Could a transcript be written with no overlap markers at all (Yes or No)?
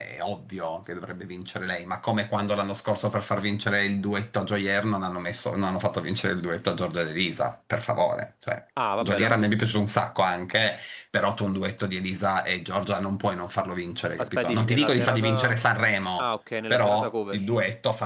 No